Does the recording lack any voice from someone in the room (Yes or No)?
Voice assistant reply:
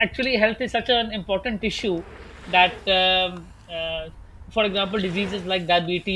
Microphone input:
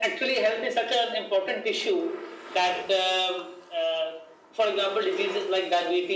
Yes